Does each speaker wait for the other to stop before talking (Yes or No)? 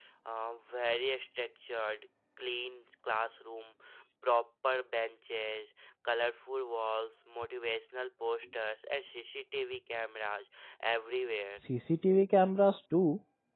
Yes